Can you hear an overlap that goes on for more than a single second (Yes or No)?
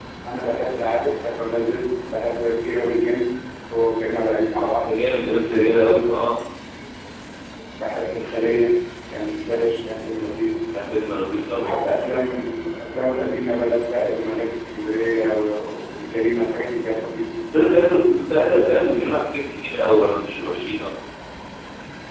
No